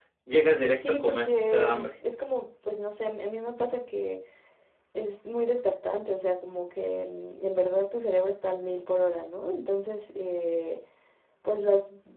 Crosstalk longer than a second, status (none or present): present